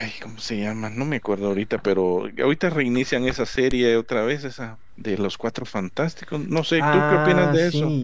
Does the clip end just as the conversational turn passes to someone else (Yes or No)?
Yes